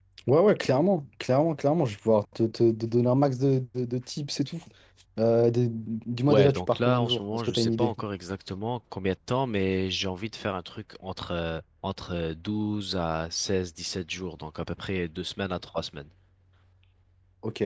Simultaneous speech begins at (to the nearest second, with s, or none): 6 s